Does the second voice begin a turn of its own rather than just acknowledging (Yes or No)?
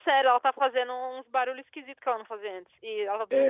Yes